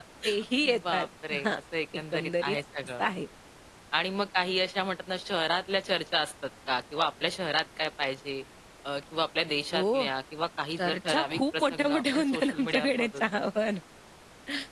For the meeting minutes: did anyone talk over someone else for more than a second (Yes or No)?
Yes